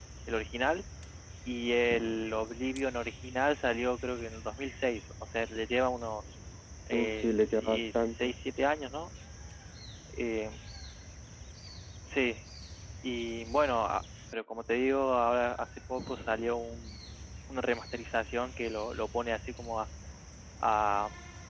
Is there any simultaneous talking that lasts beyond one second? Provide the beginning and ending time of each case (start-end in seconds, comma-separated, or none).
6.9-8.3